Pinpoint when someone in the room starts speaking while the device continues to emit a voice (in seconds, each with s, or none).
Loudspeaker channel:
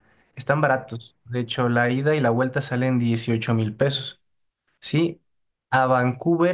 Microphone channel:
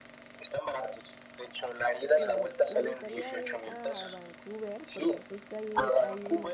2.1 s